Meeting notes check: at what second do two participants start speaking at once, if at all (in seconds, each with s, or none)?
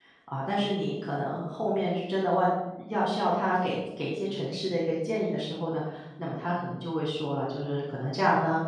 none